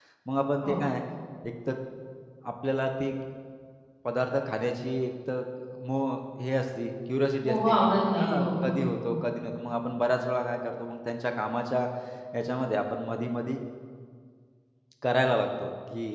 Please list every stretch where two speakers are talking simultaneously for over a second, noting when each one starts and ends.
7.5-8.8

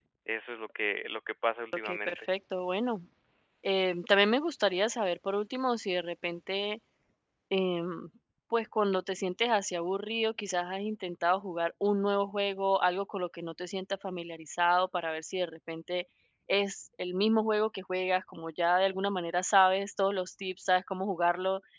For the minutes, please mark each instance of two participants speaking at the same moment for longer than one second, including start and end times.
none

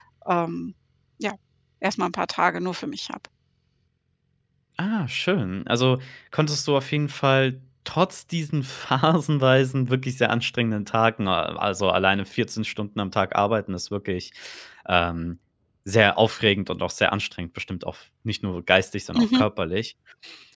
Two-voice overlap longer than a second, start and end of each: none

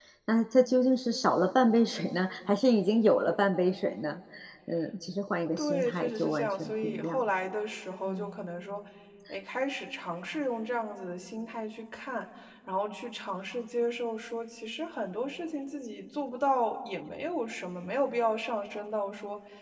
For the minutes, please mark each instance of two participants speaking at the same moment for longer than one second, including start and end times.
5.6-7.2

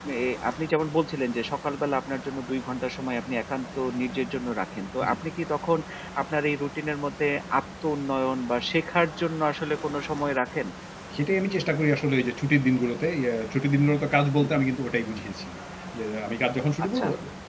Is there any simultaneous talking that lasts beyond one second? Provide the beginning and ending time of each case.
none

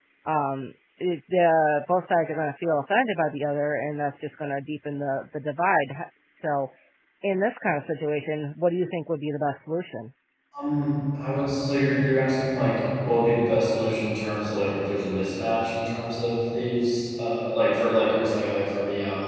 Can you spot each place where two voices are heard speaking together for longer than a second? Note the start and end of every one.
none

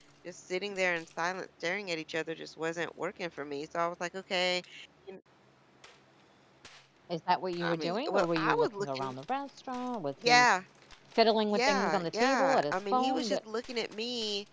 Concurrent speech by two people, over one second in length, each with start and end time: 7.6-9.1, 11.5-13.4

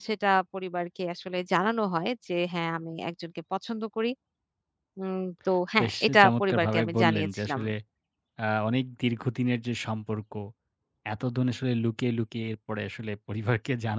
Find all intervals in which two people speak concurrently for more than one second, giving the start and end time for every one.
5.8-7.6

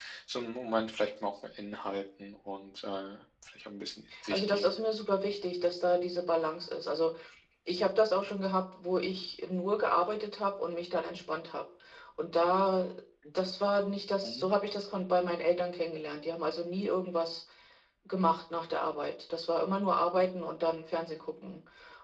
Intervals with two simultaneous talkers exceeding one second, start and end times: none

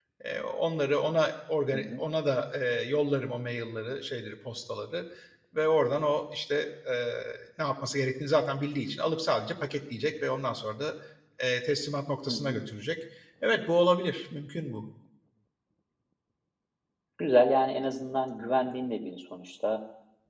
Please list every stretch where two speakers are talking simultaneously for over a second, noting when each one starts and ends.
none

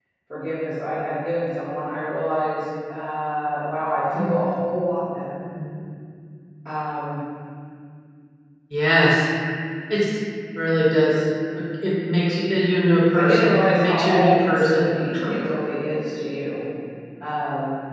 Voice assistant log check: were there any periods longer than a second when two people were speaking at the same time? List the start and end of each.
13.2-14.9

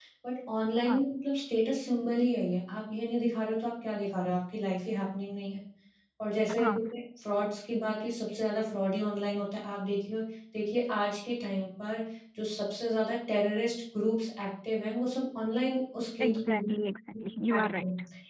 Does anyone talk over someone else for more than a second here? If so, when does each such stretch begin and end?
none

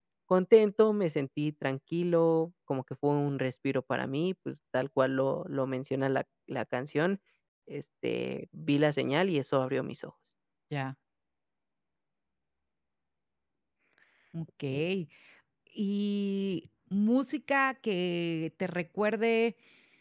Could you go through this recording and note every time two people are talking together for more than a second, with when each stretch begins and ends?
none

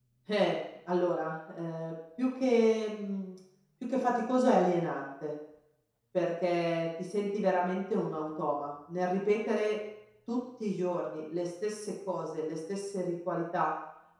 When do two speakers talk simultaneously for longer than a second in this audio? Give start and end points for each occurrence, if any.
none

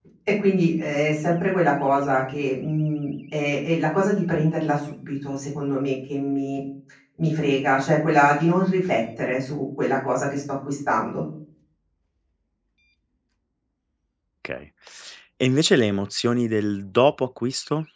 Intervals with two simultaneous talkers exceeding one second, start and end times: none

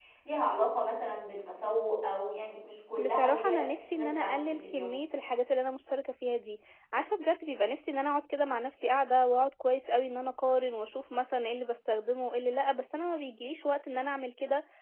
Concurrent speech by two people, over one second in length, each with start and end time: 3.0-4.9

